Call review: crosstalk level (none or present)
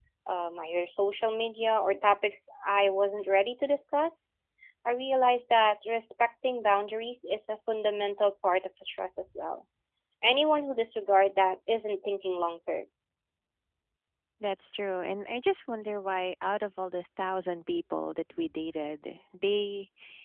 none